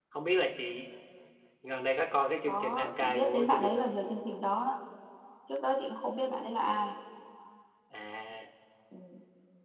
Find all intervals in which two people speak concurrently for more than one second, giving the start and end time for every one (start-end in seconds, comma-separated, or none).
2.5-3.8